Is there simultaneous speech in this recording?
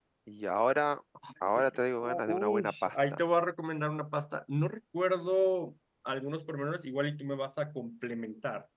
Yes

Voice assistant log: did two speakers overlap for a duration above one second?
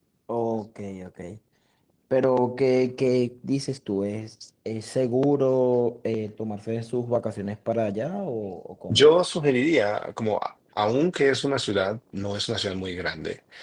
No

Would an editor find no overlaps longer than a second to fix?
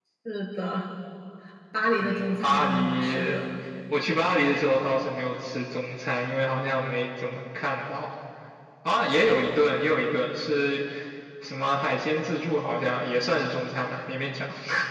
No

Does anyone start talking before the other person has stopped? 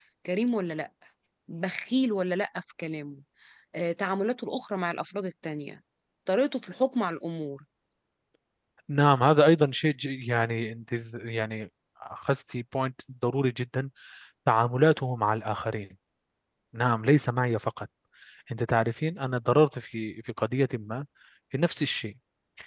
No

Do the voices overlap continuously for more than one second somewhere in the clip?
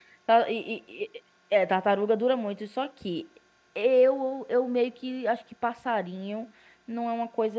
No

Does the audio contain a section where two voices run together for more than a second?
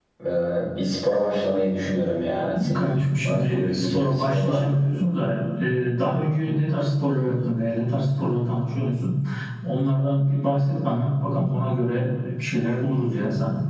Yes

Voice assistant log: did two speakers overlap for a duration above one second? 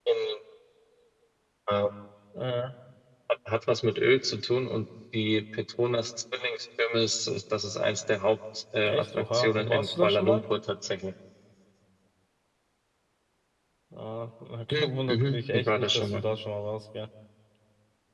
Yes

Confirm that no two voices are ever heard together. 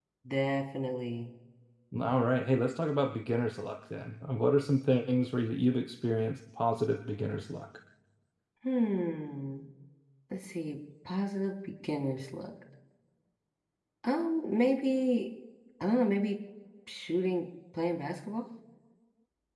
Yes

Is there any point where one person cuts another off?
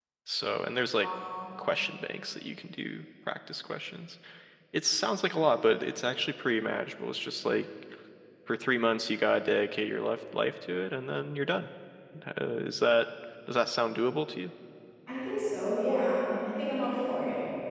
No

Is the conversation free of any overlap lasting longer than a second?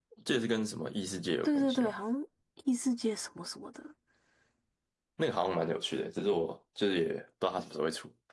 Yes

